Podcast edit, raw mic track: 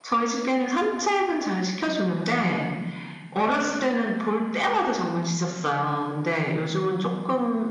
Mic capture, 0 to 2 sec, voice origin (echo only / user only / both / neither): echo only